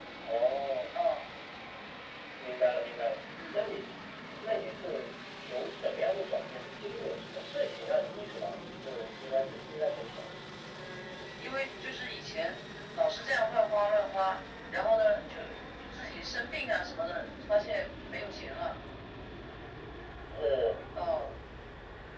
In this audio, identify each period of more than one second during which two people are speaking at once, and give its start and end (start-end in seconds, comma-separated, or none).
none